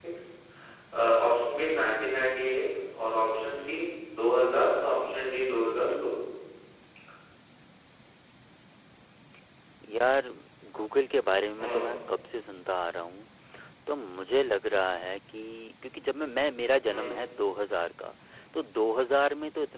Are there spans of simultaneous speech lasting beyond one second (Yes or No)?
No